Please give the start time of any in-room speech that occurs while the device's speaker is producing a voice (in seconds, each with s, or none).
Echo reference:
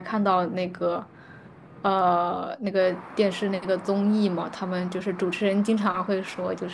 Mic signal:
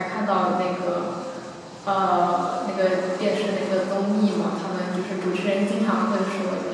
none